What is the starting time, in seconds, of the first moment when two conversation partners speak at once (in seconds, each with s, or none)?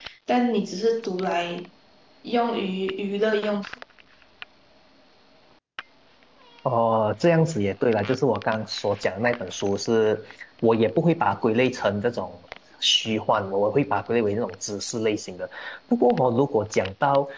none